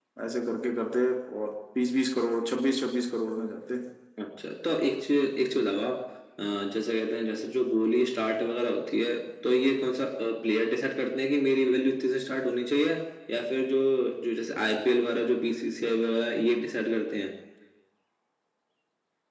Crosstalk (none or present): none